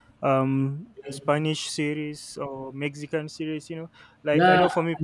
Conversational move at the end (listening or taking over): taking over